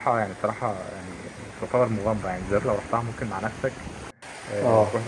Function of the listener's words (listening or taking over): listening